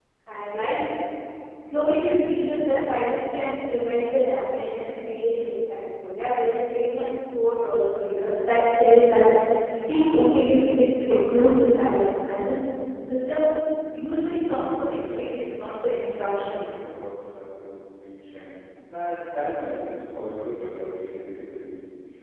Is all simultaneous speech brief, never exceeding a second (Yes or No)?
No